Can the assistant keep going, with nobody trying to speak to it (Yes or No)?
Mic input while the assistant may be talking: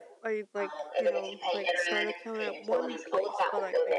No